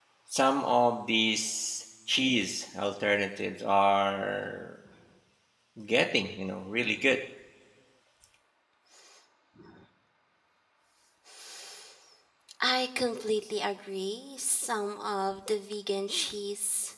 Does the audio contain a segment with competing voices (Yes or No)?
No